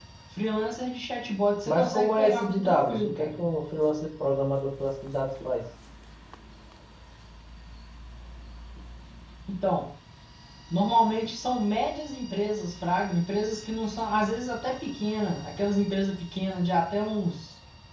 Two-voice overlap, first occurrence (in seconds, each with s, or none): 1.7 s